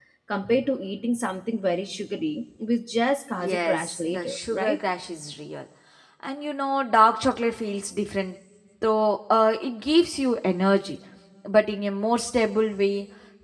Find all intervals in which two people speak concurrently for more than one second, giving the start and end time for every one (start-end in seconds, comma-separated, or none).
3.3-4.8